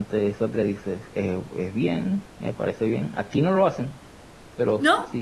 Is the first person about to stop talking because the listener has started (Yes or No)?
No